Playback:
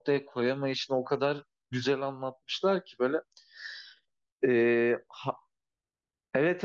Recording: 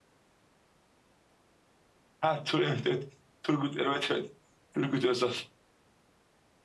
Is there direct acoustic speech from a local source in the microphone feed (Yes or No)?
Yes